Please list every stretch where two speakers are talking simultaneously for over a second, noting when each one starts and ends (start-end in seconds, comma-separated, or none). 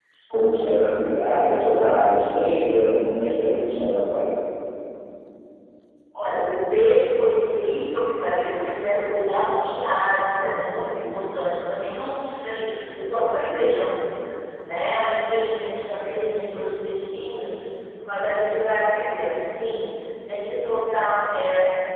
none